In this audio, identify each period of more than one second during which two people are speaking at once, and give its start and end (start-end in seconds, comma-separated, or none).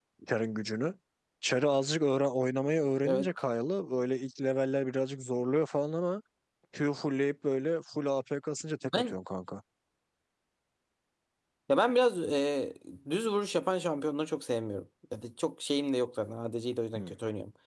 none